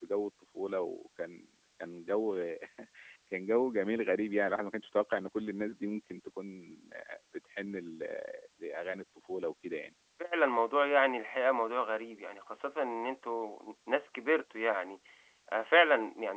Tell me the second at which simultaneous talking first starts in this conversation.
none

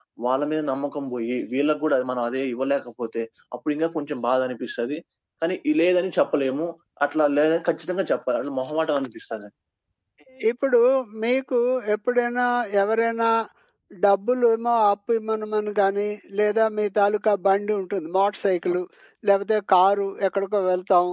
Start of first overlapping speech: none

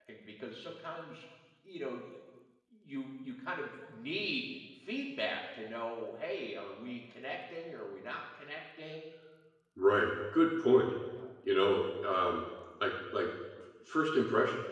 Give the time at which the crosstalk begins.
none

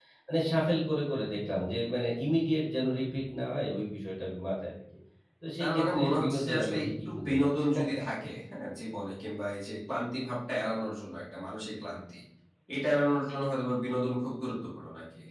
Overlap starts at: 5.6 s

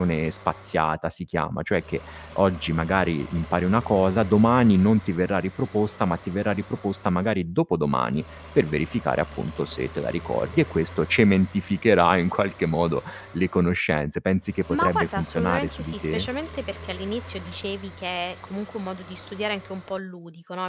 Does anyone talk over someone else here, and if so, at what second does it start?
14.7 s

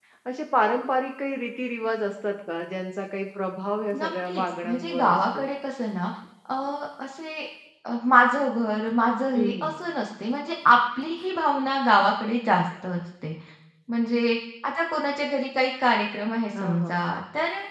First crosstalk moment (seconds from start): 4.0 s

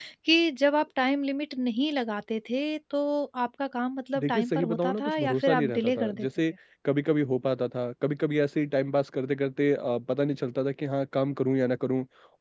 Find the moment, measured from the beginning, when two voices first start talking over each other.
4.2 s

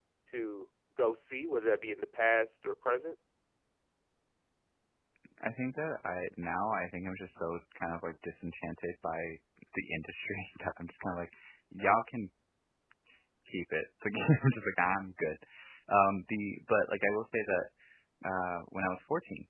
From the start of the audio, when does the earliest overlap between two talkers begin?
none

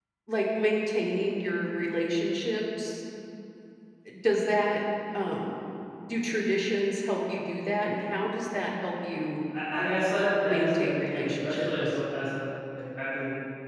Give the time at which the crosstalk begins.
10.4 s

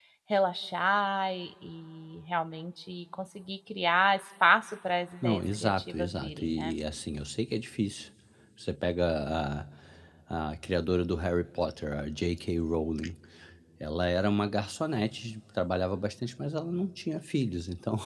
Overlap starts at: 5.2 s

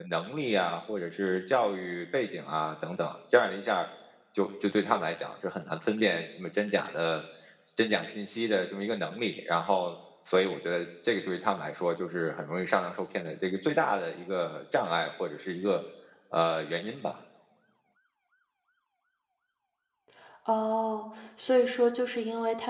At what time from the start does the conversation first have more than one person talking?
none

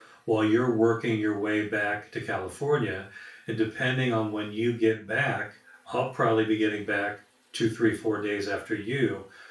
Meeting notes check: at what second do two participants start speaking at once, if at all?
none

